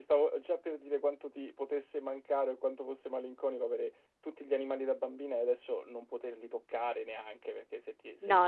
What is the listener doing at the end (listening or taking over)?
taking over